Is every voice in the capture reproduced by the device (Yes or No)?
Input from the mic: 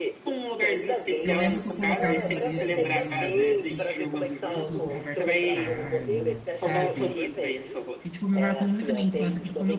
No